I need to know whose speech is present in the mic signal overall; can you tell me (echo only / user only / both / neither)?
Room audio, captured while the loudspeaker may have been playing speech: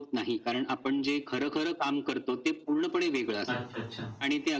both